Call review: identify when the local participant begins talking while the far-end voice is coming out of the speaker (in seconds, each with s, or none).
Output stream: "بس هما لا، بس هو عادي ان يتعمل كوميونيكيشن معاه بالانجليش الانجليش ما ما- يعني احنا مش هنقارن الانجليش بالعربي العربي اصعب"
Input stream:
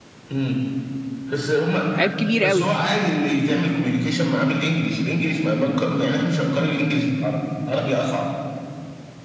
2.0 s